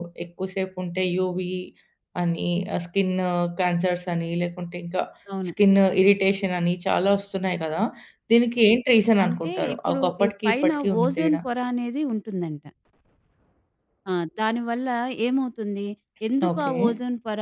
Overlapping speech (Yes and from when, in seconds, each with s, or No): Yes, from 9.2 s